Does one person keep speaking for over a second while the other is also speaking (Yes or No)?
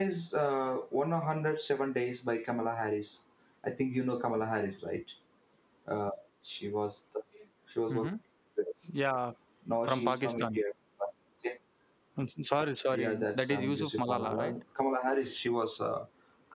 Yes